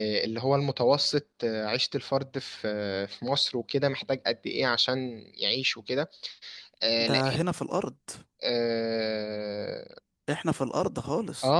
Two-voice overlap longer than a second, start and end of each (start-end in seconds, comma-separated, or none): none